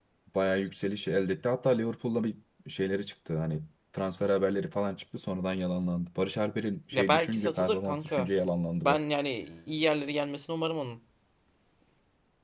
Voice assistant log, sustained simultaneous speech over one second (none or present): present